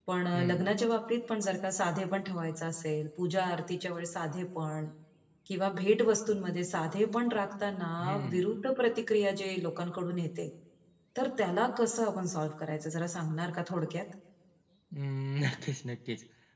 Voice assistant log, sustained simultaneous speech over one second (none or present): none